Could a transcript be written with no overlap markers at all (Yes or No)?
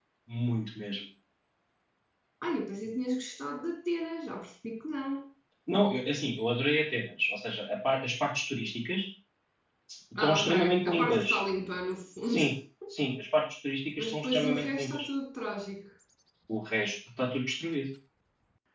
No